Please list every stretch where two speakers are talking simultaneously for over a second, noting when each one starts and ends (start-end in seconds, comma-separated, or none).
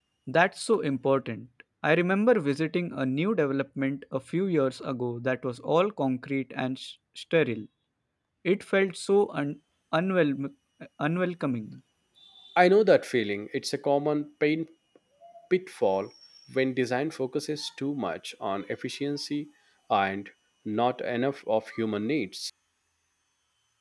none